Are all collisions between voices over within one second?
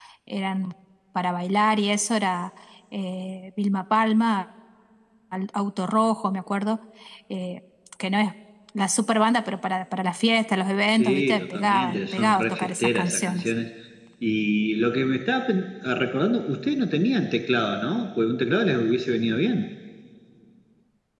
No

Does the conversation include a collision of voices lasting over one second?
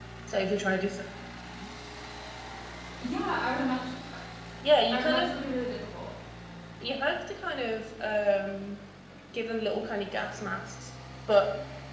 No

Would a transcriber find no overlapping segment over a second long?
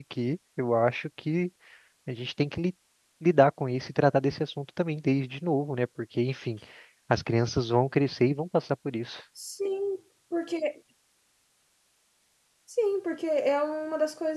Yes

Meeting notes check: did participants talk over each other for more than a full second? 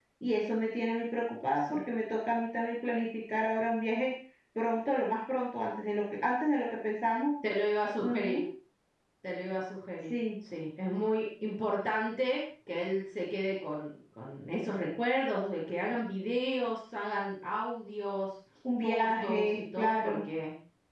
Yes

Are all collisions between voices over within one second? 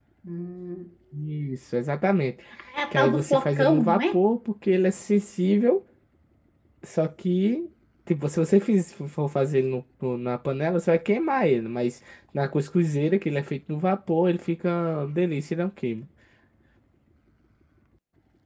No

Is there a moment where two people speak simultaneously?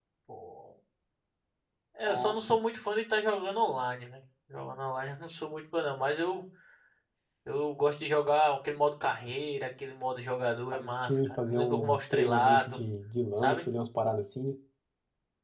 Yes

